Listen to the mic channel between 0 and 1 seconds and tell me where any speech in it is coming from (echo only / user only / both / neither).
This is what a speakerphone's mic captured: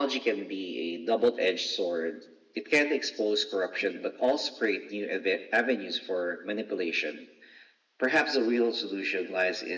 echo only